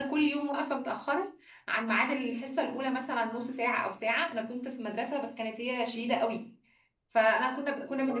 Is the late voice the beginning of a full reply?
No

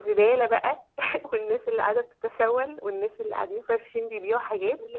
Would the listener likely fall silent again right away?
Yes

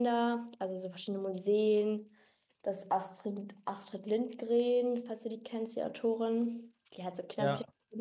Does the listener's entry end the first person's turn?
No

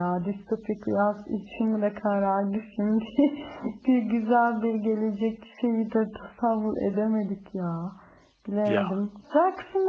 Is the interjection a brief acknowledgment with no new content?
Yes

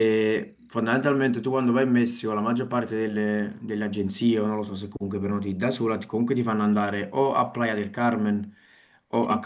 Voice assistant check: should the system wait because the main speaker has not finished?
Yes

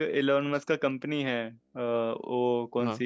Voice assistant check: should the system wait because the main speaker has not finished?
Yes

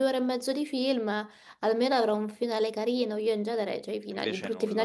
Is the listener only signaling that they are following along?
Yes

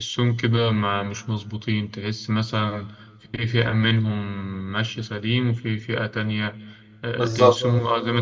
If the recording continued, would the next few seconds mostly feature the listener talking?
No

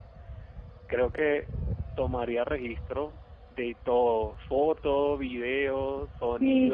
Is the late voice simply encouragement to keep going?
No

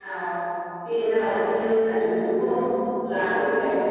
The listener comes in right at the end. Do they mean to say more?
No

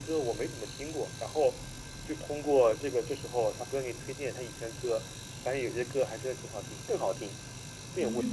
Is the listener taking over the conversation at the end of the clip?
Yes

